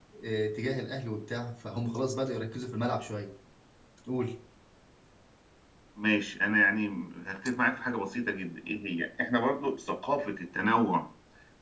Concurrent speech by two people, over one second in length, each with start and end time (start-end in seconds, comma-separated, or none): none